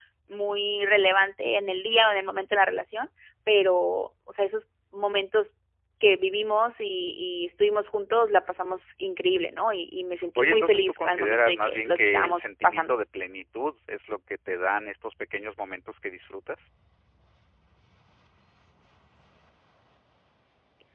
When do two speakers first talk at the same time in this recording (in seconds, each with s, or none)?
10.4 s